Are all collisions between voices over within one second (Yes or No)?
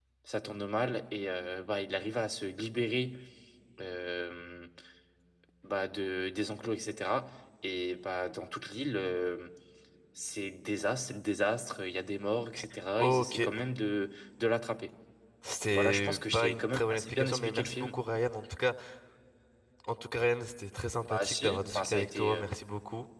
No